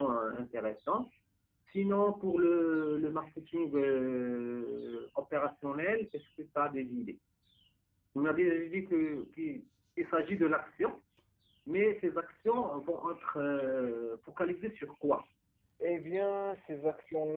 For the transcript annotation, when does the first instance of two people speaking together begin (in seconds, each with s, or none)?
none